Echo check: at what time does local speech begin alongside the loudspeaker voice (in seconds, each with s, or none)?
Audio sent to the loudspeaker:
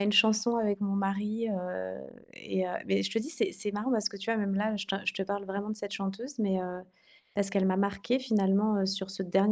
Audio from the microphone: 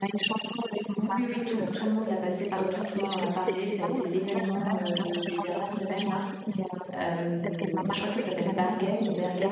1.0 s